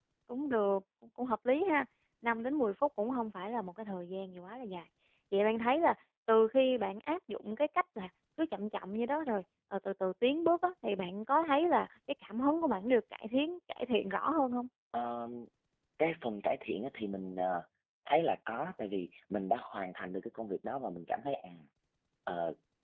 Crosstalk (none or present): none